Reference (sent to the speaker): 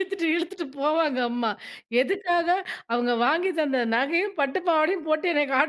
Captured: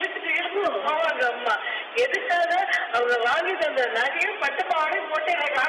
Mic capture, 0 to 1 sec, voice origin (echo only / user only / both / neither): both